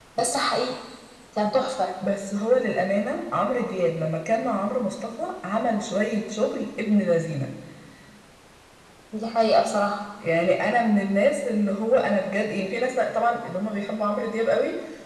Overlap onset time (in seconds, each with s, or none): none